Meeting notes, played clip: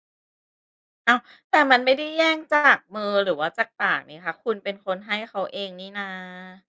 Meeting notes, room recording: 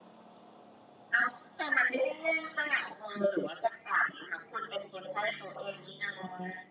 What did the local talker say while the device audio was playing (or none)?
none